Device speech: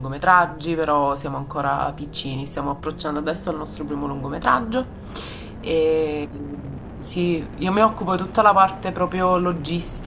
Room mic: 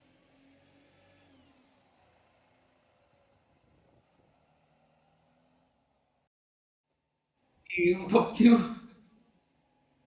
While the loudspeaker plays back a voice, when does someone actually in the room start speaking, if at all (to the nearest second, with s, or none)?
8 s